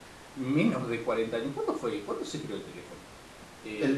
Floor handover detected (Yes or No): Yes